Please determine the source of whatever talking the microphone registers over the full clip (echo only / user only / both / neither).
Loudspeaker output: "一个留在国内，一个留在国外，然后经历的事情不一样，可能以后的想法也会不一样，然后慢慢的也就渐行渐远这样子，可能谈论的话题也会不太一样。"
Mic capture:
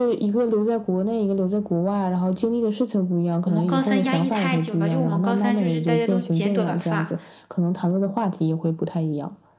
both